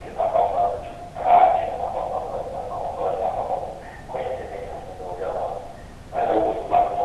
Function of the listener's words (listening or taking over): listening